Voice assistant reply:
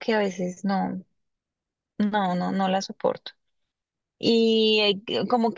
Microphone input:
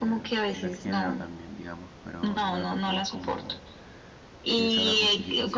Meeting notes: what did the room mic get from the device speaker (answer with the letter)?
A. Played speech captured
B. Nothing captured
A